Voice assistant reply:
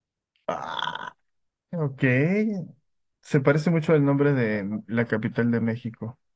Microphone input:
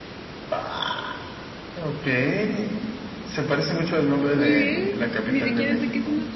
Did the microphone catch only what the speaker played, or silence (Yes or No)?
No